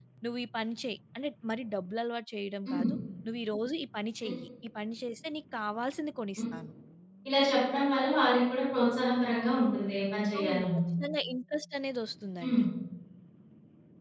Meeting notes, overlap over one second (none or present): none